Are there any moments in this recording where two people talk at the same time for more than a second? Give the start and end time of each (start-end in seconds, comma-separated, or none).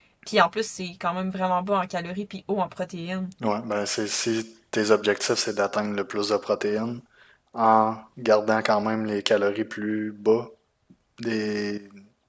none